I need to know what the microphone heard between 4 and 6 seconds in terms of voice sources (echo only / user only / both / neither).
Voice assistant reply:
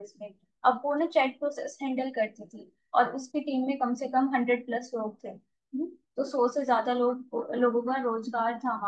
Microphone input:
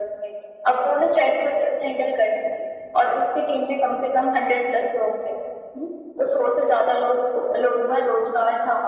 echo only